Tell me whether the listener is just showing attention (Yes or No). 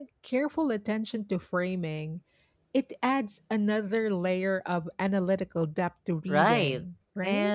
No